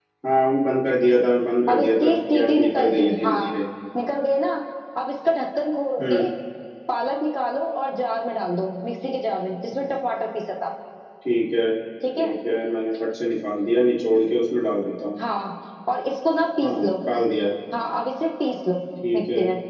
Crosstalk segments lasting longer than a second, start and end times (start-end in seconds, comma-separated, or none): 1.7-3.5